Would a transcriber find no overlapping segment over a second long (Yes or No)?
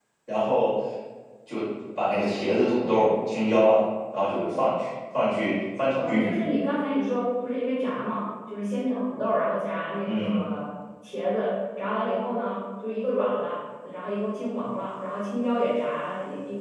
Yes